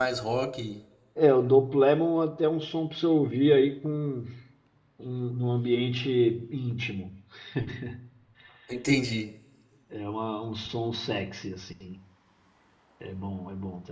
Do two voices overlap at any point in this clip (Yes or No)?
No